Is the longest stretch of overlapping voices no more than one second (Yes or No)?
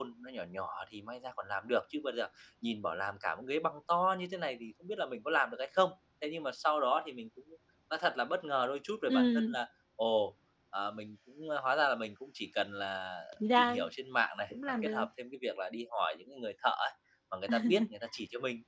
Yes